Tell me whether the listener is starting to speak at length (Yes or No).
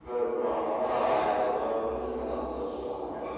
Yes